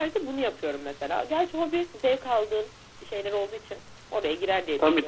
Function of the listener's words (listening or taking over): taking over